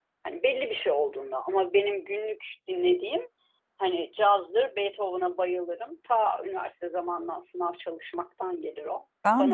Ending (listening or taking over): taking over